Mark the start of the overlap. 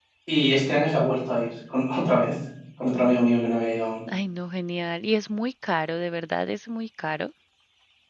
none

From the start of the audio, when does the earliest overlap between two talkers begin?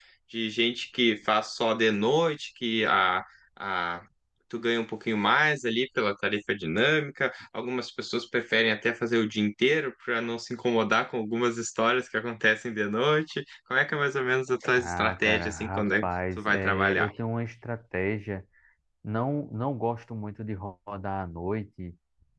14.8 s

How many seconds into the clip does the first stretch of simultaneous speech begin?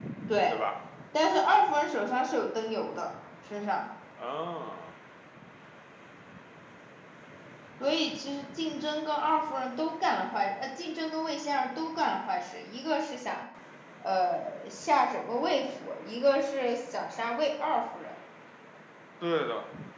none

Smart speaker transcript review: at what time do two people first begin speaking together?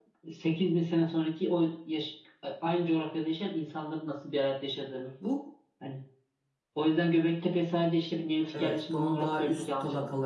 8.5 s

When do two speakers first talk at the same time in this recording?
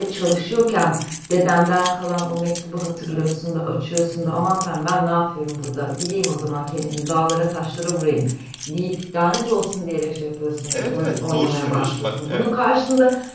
10.7 s

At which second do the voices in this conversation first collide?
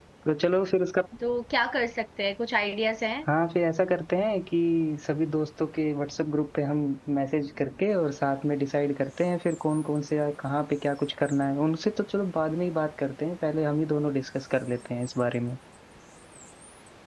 none

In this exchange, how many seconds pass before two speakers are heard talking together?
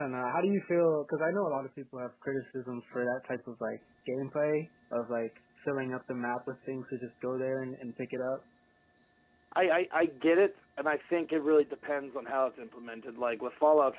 none

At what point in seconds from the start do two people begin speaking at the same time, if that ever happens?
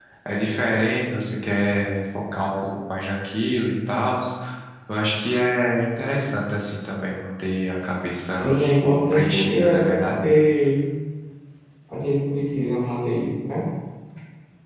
8.3 s

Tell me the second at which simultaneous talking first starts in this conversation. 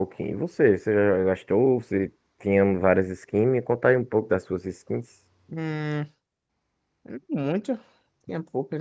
none

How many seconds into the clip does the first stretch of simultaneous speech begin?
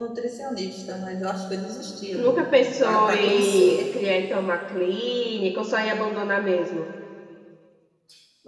2.1 s

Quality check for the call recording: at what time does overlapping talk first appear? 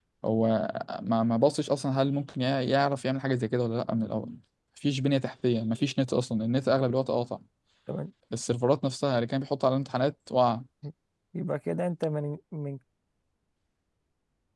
none

